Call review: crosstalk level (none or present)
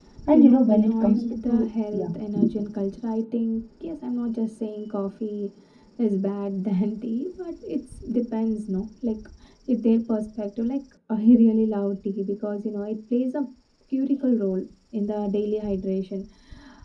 present